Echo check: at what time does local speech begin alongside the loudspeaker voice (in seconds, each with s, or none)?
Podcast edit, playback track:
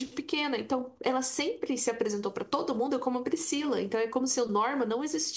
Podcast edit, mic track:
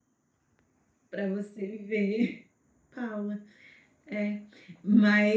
1.1 s